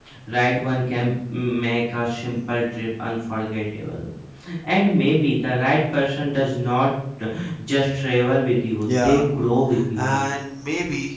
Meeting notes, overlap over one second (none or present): none